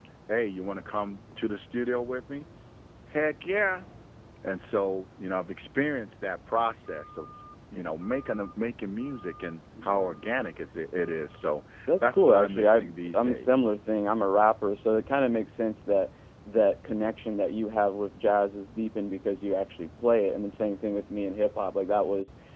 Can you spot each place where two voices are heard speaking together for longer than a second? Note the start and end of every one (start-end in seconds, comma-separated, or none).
12.0-13.6